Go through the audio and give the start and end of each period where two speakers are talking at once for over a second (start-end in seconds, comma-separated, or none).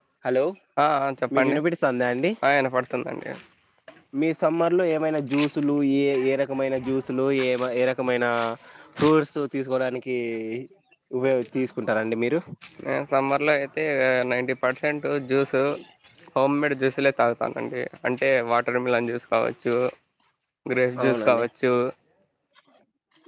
none